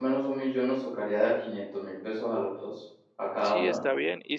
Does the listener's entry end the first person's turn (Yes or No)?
Yes